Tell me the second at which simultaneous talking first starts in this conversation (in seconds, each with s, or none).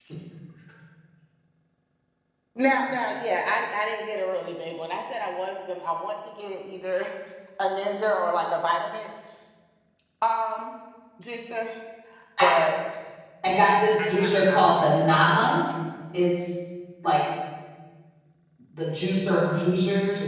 14.1 s